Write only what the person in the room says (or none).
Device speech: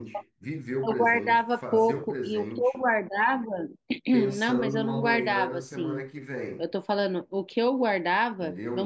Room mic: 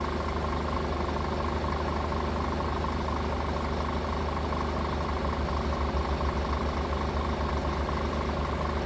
none